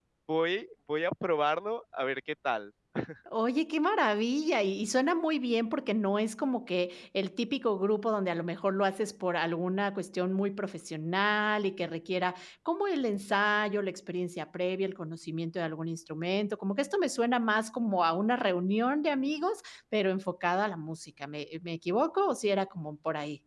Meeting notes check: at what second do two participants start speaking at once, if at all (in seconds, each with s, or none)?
none